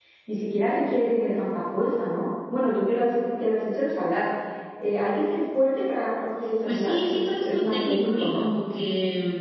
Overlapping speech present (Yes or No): Yes